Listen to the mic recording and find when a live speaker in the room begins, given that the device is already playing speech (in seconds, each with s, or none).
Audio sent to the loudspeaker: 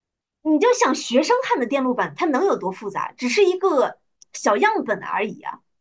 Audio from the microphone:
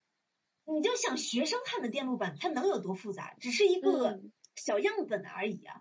3.8 s